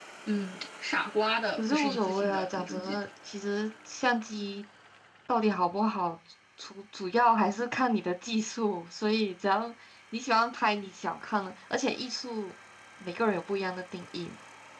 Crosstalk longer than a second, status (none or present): present